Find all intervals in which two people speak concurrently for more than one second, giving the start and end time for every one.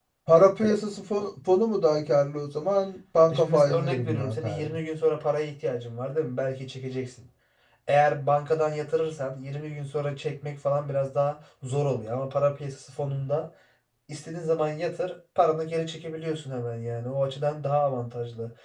3.3-4.8

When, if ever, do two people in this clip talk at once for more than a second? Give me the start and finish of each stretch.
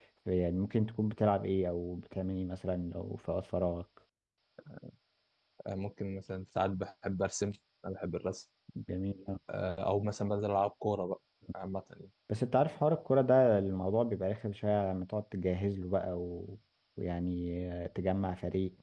none

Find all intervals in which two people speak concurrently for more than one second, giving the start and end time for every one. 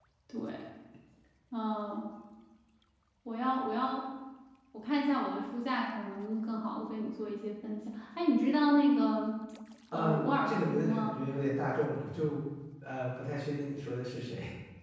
9.9-11.2

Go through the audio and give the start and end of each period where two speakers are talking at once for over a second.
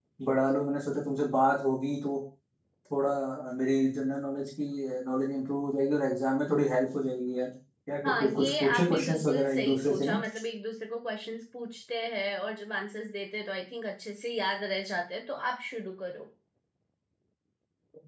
8.0-10.2

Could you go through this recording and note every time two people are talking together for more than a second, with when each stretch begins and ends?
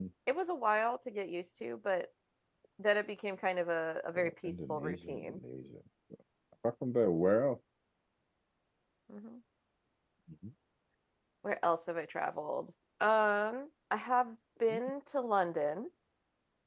4.2-5.4

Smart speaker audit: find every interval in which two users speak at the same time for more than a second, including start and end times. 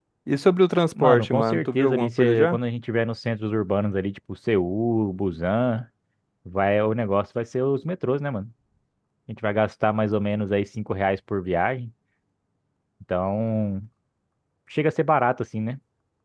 1.0-2.6

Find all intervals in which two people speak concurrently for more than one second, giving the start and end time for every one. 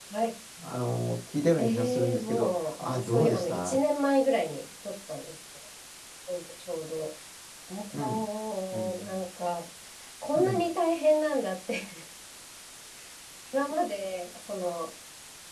1.6-3.8

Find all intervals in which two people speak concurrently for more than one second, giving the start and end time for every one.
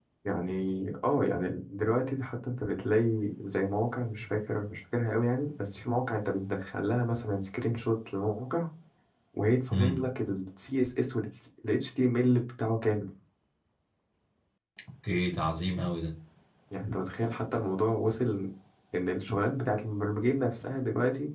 none

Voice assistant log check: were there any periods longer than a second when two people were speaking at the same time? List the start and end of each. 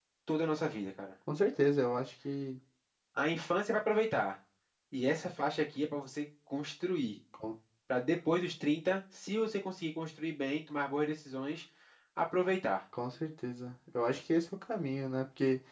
none

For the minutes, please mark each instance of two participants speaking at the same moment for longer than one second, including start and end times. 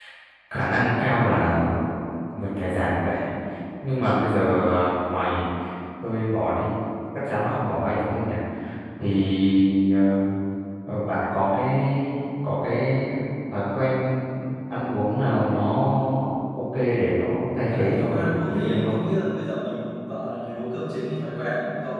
17.7-19.0

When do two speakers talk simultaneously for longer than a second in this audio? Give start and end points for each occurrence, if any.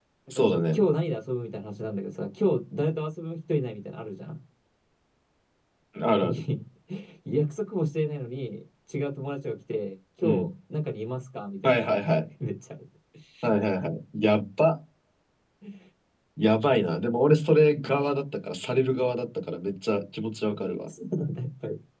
none

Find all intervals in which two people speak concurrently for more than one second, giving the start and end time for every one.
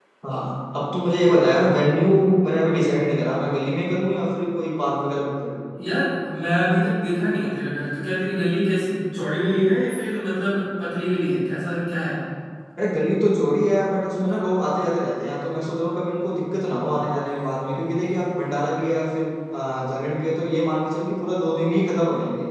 none

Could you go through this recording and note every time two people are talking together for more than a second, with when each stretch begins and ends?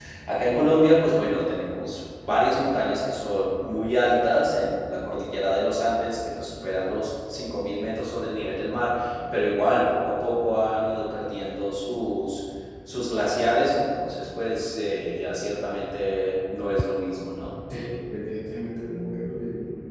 none

